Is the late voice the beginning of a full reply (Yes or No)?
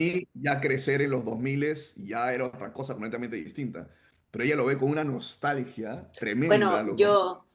Yes